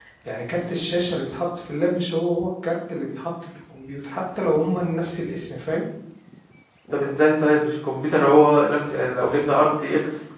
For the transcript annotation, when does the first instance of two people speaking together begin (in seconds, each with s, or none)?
none